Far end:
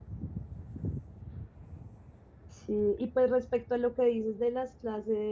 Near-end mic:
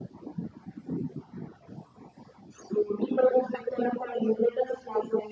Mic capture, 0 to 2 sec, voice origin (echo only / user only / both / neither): neither